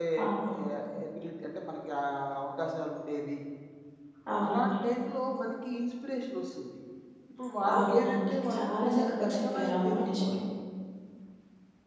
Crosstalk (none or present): present